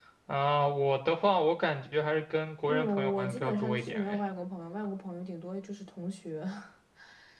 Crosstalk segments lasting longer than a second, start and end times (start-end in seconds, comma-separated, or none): 2.6-4.2